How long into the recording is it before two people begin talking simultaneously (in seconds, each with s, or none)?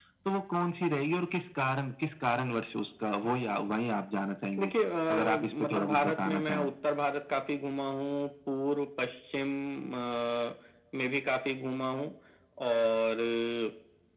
5.1 s